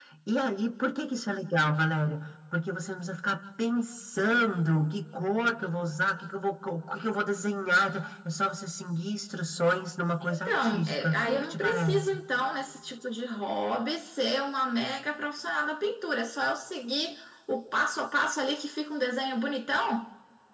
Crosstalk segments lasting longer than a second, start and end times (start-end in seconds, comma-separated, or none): 10.2-12.2